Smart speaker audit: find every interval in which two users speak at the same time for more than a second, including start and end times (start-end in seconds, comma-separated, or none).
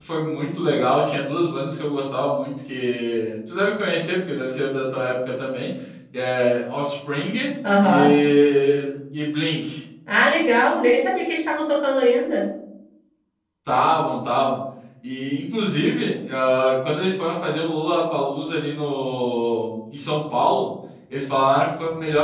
none